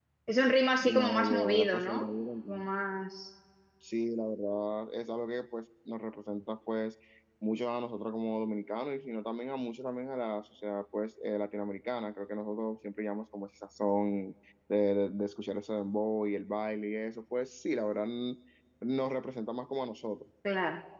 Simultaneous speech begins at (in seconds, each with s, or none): 0.8 s